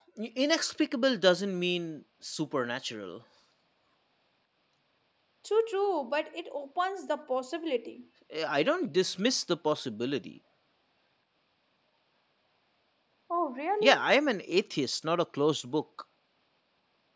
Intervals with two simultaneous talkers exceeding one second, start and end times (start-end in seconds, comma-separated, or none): none